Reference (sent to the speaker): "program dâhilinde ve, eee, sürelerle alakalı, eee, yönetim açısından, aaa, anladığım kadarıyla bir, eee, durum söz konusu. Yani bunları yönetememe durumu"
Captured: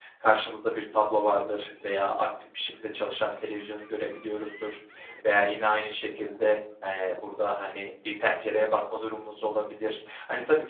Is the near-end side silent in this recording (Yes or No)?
No